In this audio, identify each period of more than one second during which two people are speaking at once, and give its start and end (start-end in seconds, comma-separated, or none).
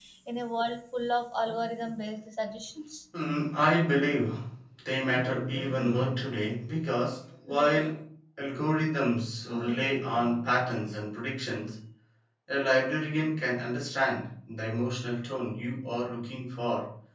none